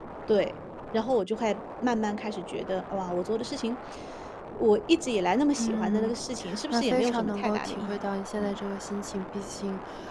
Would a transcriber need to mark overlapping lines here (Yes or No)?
Yes